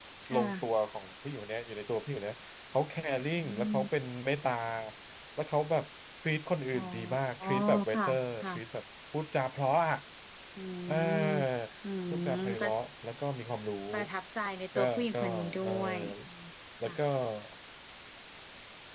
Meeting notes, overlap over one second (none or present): present